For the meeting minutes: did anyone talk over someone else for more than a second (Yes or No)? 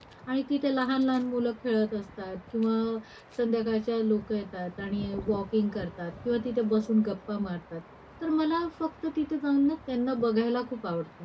No